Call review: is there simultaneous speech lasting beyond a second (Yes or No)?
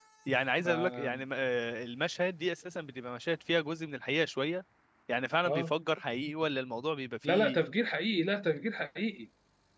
No